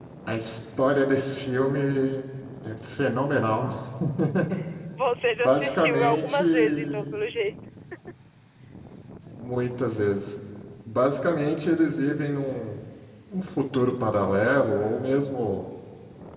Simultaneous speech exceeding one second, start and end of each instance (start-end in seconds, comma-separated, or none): 5.4-7.1